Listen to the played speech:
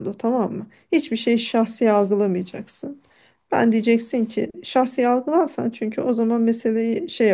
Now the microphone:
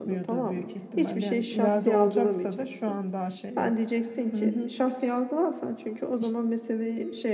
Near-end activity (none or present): present